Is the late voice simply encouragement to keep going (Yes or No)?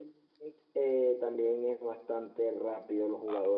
No